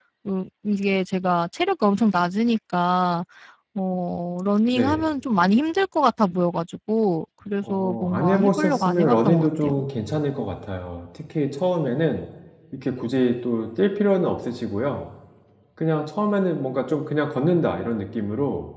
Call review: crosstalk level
present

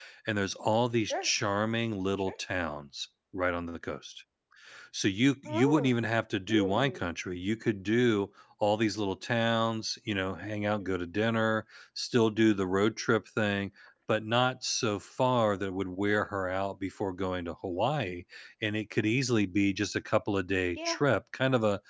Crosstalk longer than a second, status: none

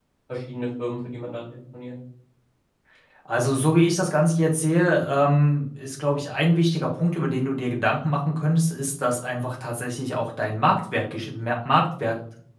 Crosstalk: none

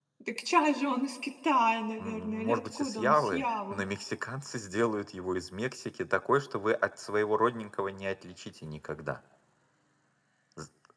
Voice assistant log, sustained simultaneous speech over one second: present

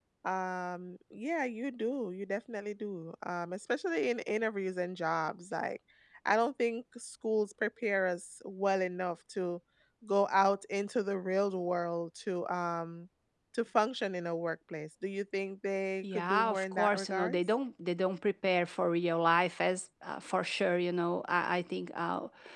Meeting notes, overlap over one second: present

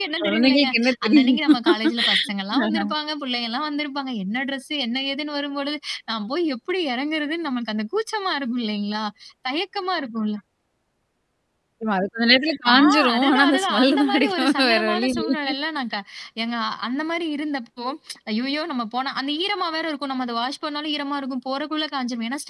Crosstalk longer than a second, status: present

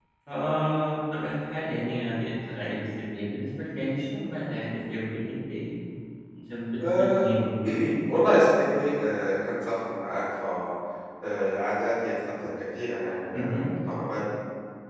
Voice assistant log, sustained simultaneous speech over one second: none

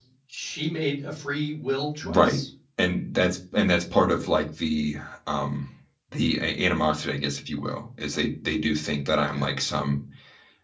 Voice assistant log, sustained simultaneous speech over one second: none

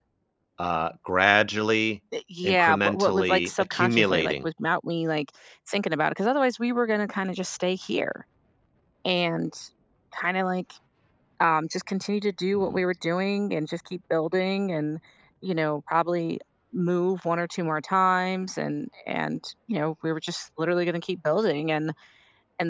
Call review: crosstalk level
present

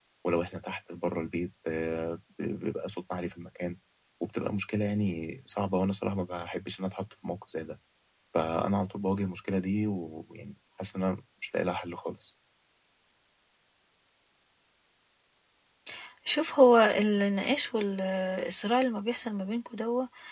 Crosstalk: none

